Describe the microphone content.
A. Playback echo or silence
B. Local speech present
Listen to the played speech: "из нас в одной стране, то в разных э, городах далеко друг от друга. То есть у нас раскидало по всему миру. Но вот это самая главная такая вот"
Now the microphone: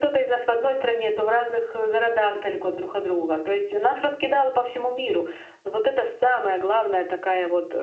A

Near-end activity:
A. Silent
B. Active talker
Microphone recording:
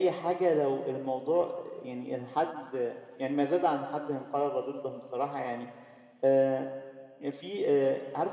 A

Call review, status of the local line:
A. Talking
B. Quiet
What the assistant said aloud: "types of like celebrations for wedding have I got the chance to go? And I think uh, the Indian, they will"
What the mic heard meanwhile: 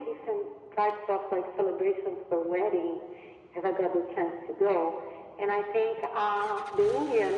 B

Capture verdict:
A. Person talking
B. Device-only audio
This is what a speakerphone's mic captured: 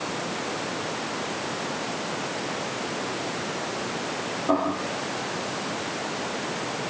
A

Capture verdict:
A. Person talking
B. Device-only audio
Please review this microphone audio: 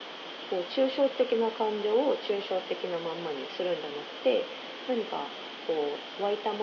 B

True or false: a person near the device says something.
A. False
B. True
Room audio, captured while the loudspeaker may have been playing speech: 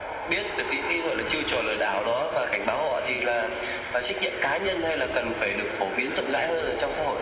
A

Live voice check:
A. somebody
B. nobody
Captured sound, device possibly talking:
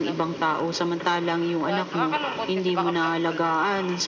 A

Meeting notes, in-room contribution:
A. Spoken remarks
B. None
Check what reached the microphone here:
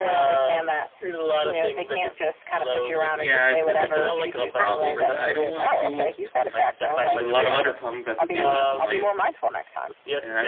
A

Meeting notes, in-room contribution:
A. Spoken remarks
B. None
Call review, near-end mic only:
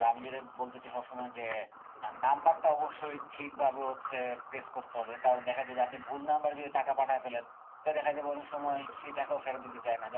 B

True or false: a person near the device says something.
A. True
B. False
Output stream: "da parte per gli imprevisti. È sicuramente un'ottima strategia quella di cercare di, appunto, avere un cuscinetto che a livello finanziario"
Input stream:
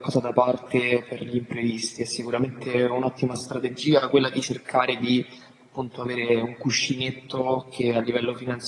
B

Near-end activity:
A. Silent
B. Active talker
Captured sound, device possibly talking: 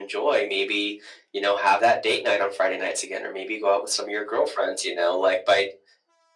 A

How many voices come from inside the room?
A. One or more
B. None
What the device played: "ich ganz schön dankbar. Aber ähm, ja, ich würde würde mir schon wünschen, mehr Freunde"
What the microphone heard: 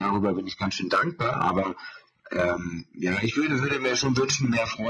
B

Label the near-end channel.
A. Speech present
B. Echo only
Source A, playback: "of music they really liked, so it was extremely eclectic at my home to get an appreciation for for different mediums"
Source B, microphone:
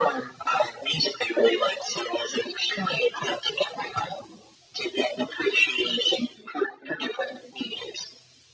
B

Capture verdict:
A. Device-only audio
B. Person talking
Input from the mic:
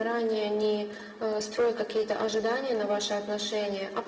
A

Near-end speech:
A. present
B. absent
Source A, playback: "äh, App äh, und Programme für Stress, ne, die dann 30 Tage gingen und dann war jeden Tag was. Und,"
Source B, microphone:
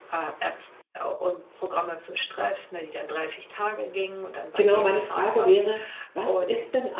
A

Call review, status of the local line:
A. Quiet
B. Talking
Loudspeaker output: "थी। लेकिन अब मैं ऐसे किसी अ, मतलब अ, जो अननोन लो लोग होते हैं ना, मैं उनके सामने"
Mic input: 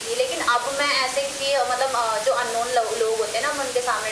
A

